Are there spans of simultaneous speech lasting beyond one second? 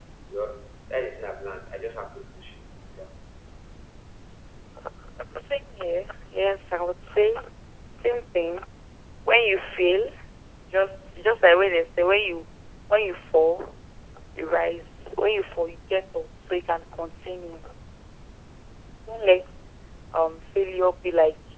No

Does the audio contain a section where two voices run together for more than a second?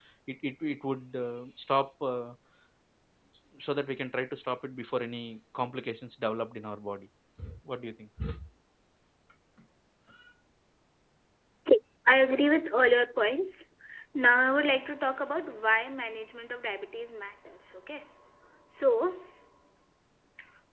No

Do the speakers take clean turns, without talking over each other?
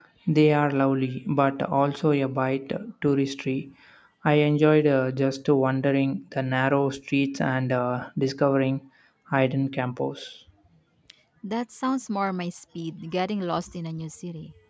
Yes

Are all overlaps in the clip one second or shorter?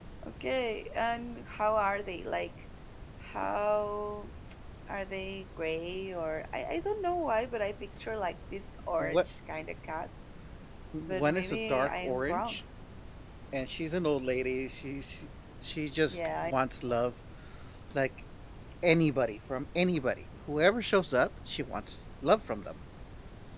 No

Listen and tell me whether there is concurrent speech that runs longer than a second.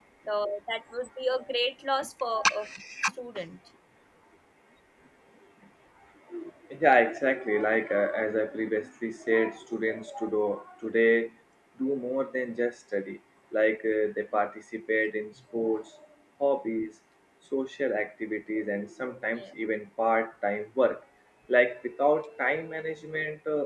No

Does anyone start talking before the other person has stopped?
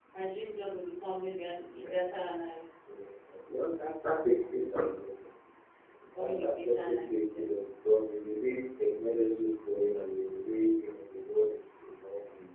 Yes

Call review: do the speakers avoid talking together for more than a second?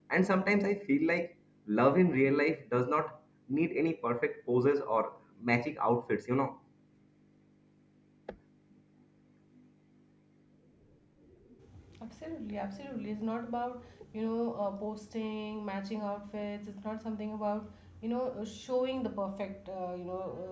Yes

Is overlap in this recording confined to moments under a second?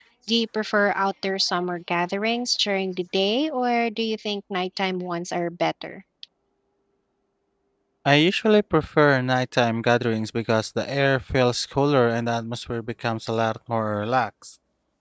Yes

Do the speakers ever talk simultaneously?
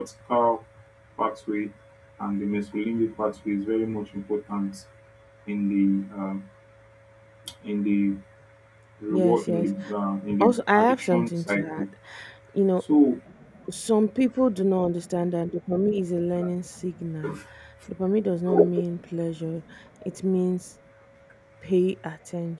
Yes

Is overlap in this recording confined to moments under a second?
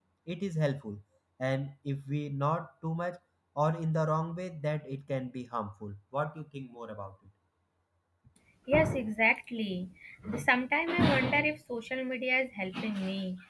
Yes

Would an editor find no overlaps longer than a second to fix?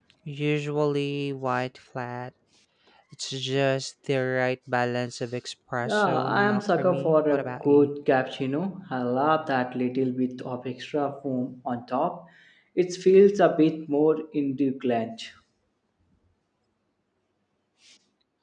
No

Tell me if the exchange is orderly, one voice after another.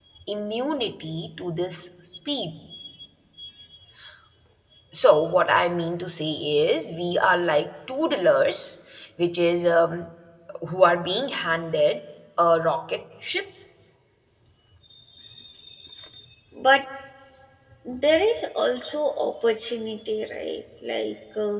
Yes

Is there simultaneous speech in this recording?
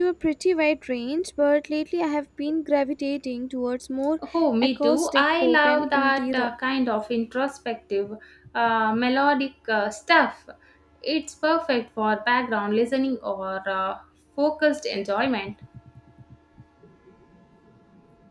Yes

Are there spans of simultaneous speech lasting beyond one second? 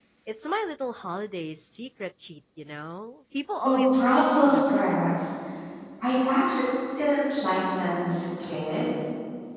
Yes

